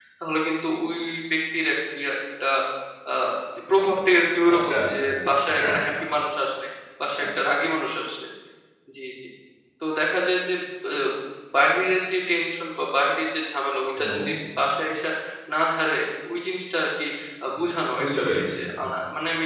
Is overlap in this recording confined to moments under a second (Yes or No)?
No